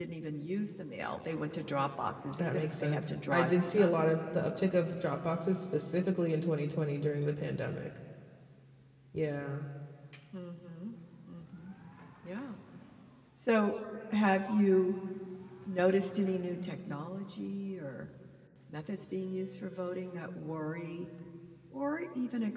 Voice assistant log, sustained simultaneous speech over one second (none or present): present